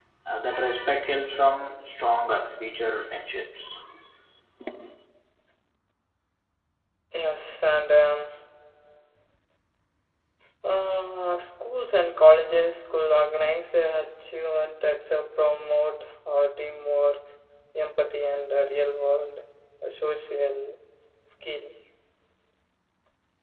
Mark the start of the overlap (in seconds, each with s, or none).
none